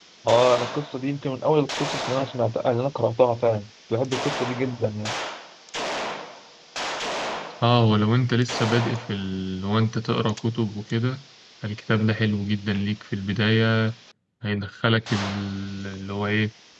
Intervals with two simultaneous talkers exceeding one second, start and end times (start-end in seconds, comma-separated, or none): none